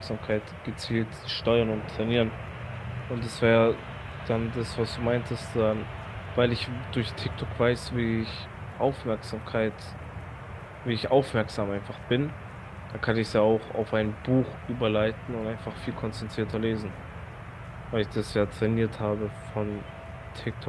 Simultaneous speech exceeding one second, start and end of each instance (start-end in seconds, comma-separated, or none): none